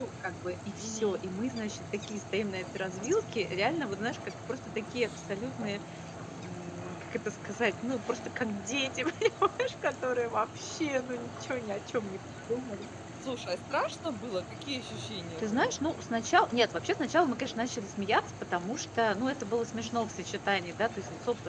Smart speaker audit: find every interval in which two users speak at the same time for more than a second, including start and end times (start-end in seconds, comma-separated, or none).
none